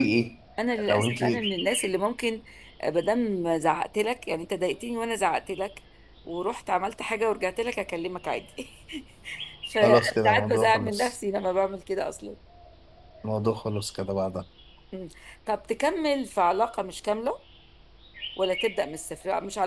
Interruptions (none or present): present